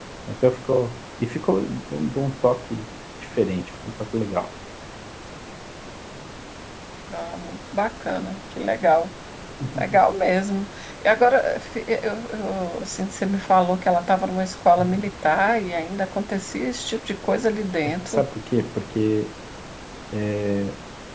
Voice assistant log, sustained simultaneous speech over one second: none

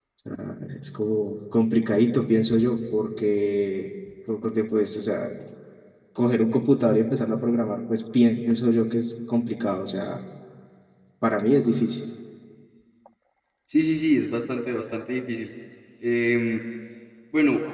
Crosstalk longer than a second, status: none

